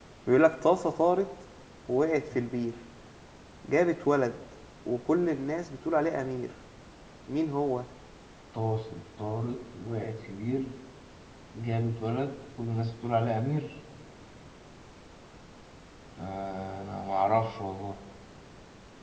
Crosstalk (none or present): none